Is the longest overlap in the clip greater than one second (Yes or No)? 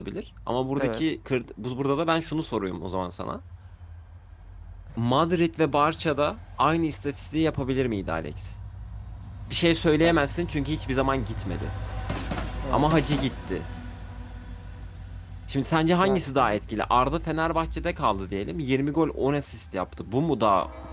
No